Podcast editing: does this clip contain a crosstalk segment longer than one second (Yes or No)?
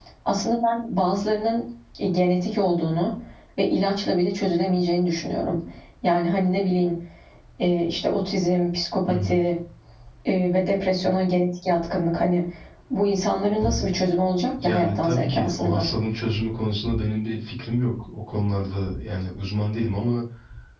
Yes